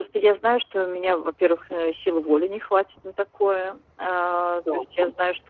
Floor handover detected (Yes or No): No